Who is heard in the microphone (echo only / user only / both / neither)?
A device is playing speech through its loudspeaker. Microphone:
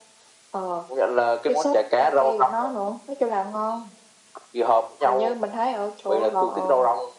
echo only